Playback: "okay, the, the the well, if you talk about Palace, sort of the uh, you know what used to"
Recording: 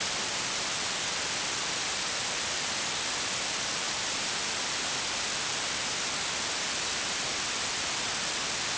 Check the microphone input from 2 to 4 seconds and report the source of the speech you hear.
neither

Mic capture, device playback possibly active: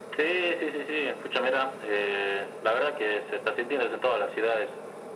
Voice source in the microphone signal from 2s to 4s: echo only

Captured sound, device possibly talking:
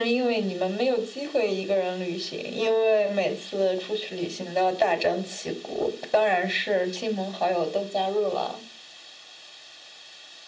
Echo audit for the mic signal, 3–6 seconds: echo only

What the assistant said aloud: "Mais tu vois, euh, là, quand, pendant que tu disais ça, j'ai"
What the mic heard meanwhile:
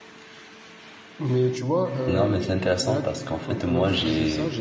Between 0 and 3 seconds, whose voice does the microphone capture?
both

